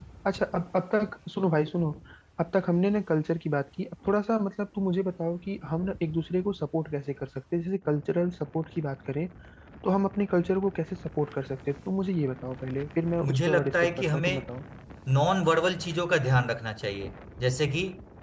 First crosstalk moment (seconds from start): 13 s

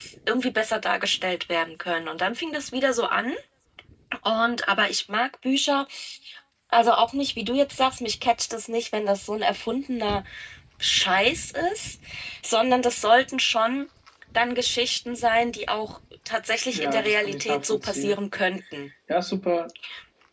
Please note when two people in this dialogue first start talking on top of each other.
17 s

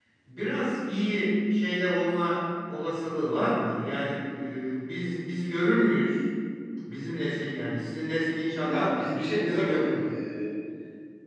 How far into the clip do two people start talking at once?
9 s

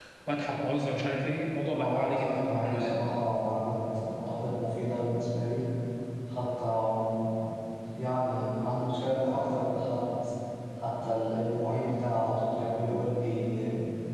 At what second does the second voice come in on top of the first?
2 s

